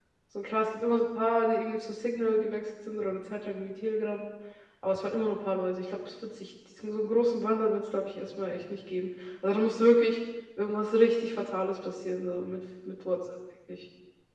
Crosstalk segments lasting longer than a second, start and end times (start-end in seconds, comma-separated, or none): none